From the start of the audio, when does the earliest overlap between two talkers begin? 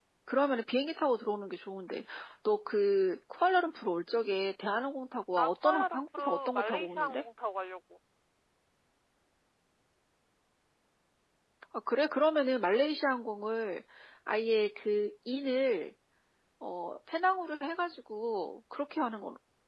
5.4 s

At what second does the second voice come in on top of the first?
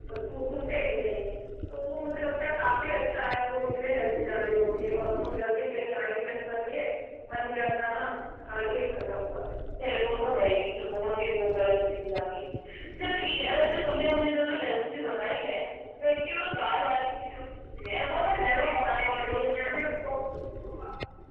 18.1 s

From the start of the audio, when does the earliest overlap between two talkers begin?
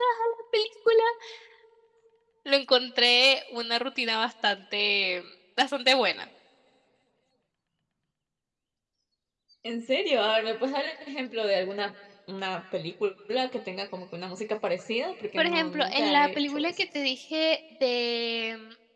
15.4 s

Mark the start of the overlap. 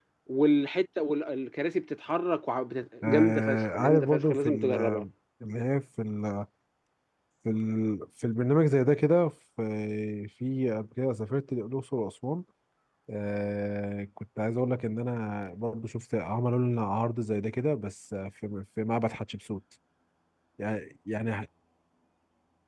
3.0 s

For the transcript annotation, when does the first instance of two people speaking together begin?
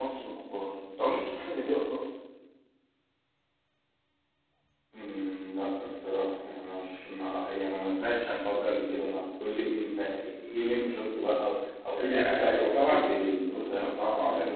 12.0 s

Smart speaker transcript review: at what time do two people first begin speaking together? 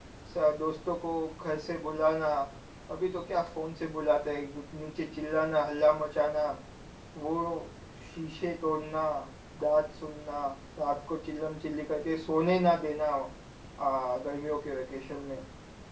none

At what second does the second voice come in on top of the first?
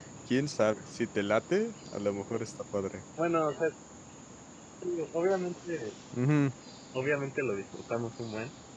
none

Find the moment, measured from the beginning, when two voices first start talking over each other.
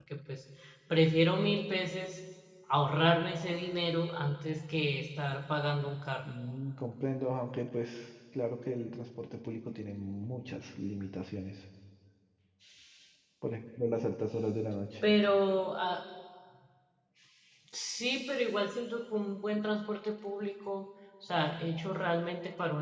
none

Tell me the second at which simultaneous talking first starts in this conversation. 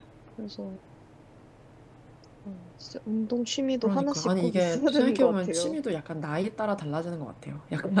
3.8 s

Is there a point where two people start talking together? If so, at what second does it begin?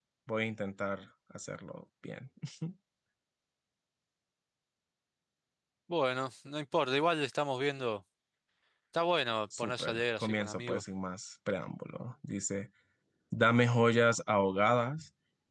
9.6 s

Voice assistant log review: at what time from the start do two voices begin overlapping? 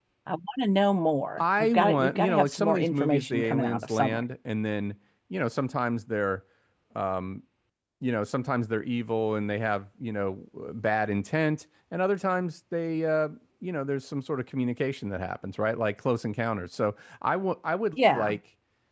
1.4 s

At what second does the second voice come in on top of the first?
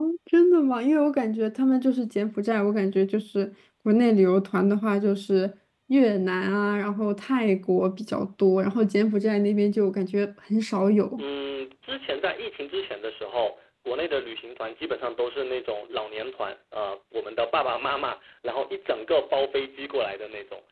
none

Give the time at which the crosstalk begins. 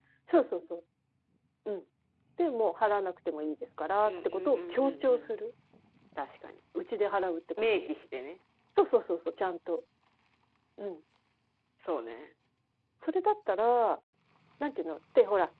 4.0 s

